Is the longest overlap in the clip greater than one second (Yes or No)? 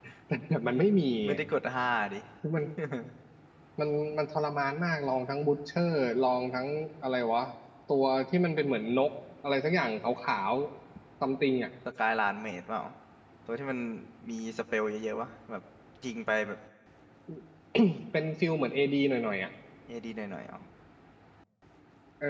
No